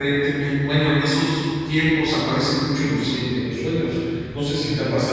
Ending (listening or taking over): taking over